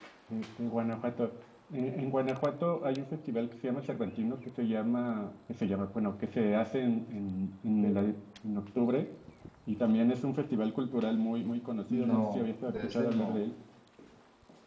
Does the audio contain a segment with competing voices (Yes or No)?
Yes